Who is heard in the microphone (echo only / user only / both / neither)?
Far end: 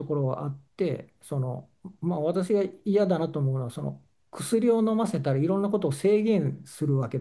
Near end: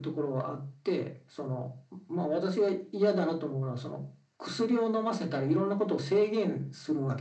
echo only